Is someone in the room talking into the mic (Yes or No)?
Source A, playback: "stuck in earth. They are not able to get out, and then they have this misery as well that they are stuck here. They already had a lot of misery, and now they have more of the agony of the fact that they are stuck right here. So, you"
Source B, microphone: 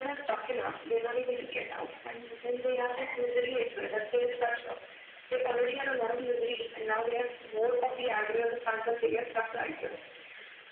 No